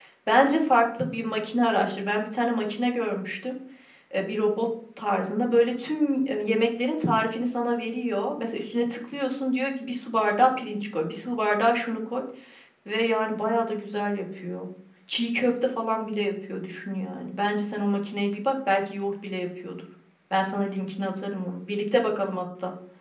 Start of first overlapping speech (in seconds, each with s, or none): none